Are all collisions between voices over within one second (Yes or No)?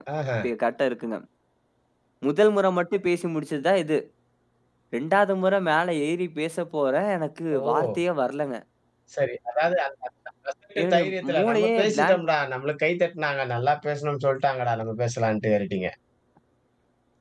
No